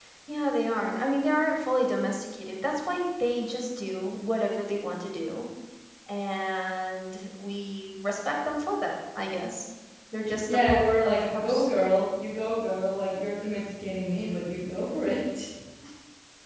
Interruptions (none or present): present